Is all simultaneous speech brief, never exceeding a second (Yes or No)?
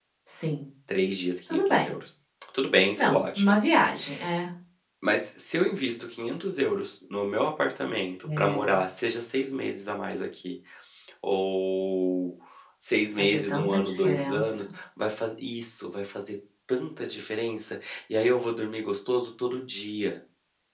No